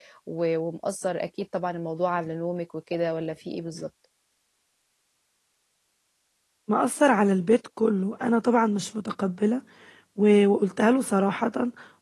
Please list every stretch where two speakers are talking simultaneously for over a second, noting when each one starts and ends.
none

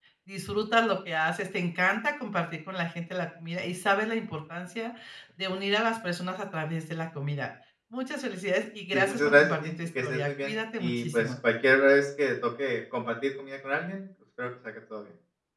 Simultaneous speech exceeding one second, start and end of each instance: 8.9-11.3

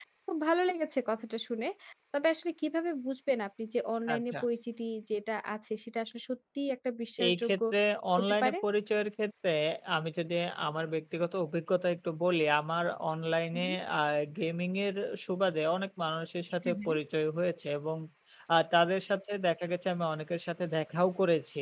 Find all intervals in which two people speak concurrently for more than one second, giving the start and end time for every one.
none

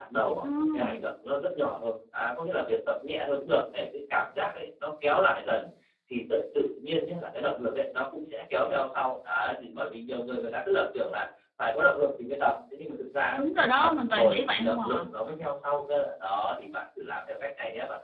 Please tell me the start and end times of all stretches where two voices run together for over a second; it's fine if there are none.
13.3-15.0

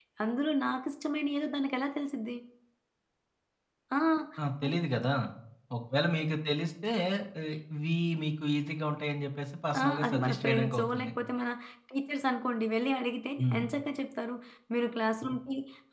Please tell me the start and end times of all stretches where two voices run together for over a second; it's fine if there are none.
9.8-11.1

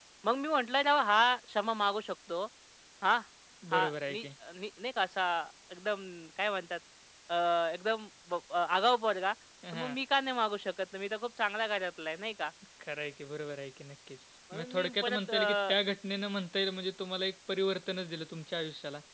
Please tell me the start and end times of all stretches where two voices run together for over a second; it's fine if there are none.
14.5-15.8

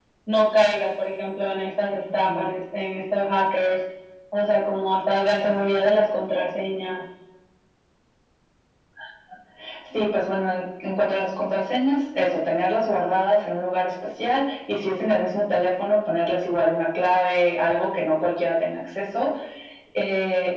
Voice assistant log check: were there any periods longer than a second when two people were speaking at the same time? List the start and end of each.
none

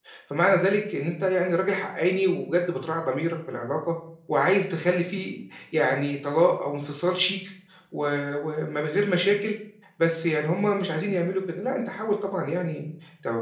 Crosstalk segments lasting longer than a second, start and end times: none

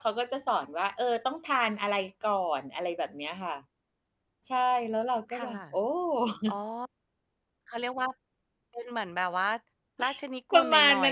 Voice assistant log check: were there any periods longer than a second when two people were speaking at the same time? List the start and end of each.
none

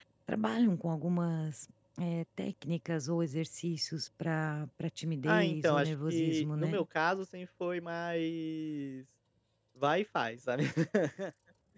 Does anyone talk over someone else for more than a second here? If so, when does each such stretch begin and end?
5.2-6.8

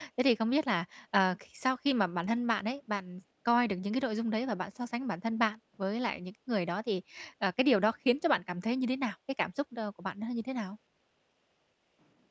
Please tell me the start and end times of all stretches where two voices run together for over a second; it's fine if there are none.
none

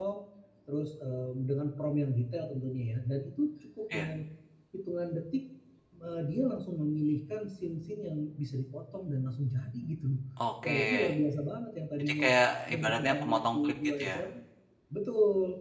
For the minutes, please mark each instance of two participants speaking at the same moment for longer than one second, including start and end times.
12.7-14.3

